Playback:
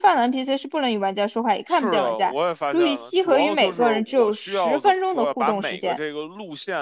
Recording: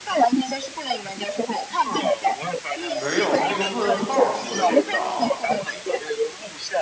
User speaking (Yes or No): Yes